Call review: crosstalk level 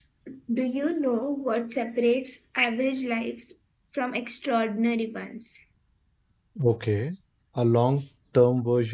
none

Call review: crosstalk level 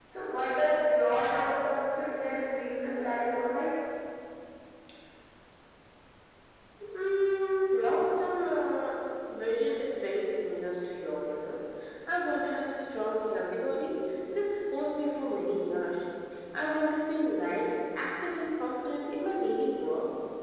none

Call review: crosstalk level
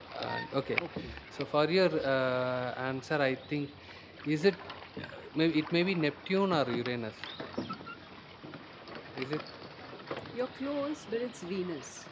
none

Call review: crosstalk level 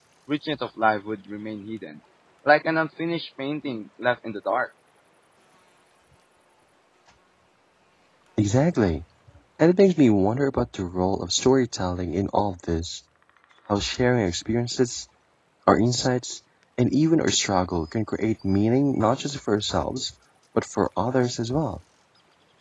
none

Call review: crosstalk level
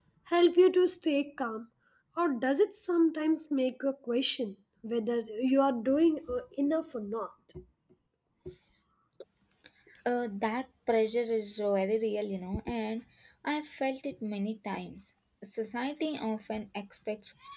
none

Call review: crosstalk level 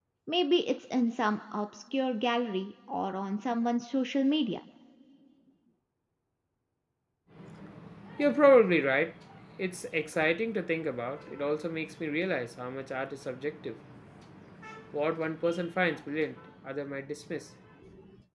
none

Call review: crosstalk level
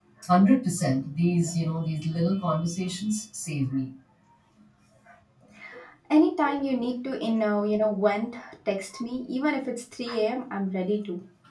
none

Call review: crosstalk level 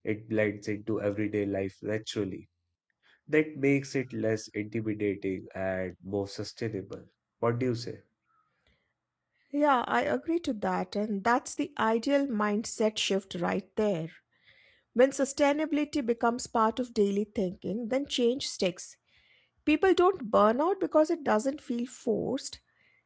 none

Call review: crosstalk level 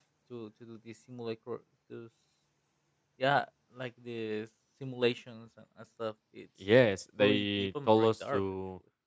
present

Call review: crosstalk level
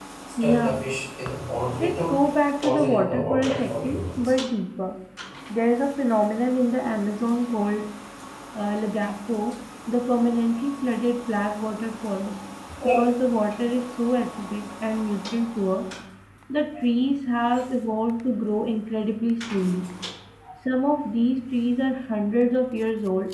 present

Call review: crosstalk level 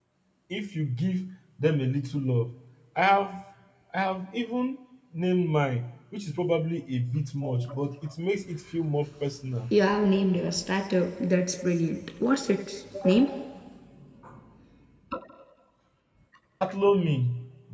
none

